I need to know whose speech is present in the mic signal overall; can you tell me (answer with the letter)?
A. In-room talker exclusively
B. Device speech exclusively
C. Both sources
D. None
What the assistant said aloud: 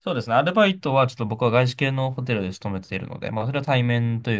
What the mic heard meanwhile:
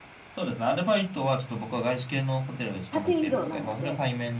C